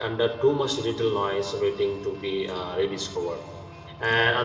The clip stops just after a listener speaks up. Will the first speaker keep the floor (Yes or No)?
Yes